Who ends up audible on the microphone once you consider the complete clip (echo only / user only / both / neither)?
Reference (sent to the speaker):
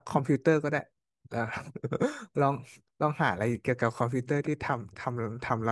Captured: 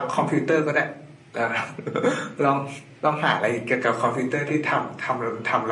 echo only